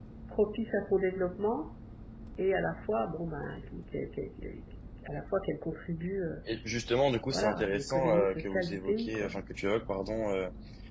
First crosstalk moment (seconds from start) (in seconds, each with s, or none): 7.3 s